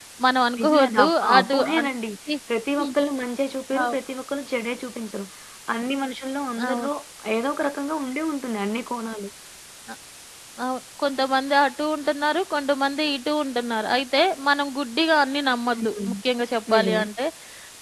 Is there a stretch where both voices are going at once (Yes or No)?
Yes